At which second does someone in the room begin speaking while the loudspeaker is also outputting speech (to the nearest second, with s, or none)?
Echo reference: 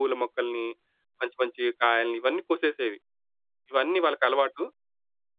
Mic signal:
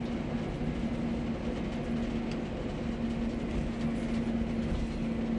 none